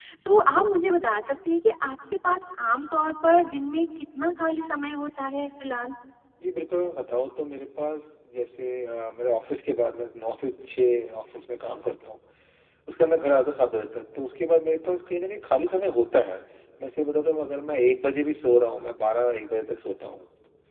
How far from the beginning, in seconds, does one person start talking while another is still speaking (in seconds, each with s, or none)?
none